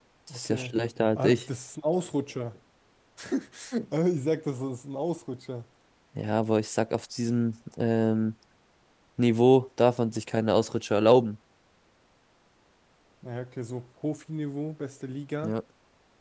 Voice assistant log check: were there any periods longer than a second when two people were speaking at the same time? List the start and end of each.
none

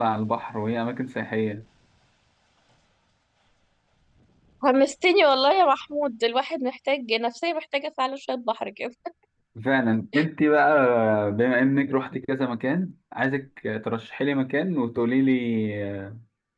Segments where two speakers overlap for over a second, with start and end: none

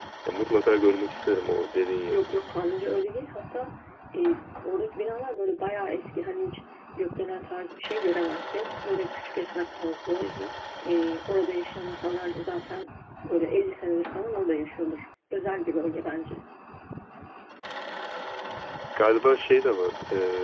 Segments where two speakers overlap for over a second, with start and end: none

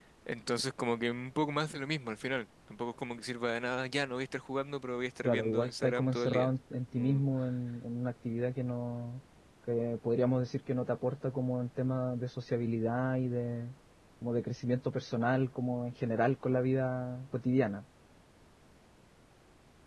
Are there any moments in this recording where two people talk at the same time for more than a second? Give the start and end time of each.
5.2-6.5

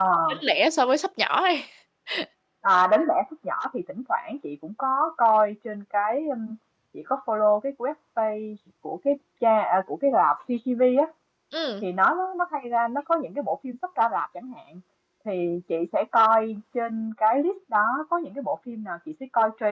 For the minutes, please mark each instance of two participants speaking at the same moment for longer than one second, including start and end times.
none

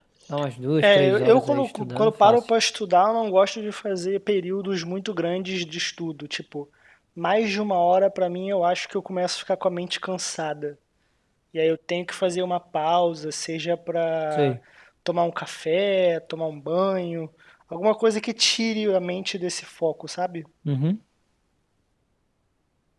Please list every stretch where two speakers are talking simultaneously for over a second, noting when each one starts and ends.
0.8-2.4

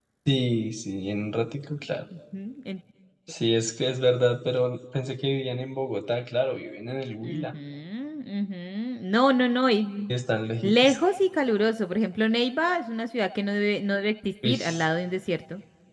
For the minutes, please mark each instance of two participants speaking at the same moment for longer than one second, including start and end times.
none

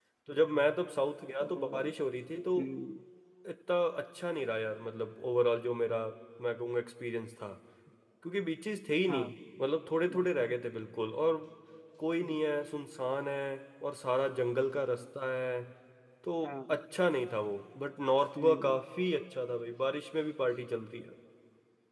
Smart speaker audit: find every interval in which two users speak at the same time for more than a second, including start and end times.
none

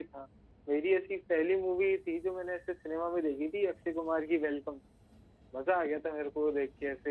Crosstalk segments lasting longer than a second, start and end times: none

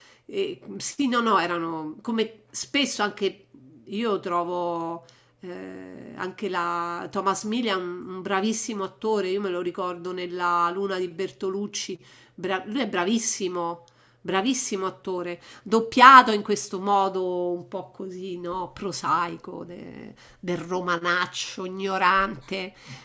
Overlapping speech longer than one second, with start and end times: none

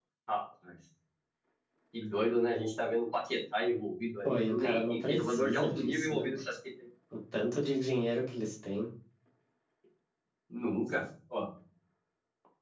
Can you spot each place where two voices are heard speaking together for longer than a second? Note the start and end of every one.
4.2-6.4

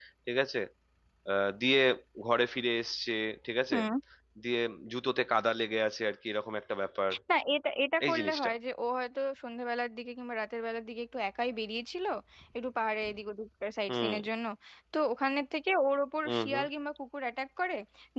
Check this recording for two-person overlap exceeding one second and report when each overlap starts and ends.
none

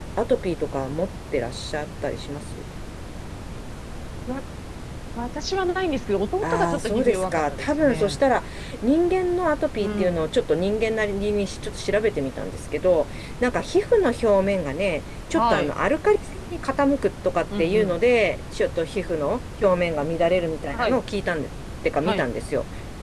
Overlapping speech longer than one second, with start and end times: 6.4-8.2

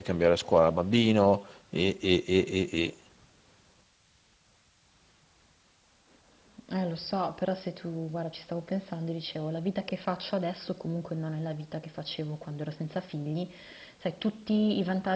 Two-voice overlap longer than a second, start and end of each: none

